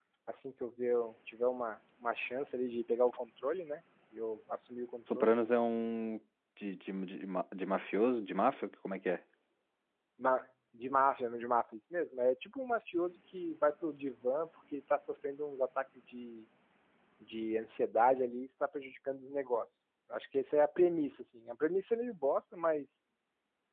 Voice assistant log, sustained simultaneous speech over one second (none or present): none